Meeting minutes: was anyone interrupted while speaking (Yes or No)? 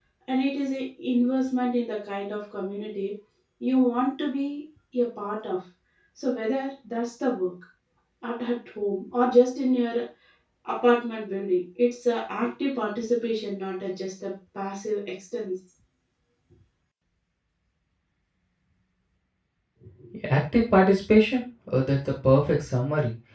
No